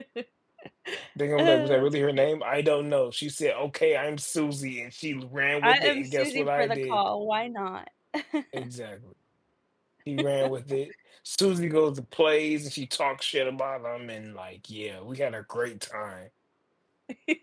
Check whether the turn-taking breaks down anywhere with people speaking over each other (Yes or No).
Yes